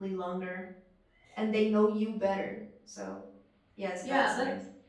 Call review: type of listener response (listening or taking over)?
taking over